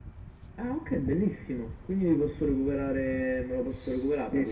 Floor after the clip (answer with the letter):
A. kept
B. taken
B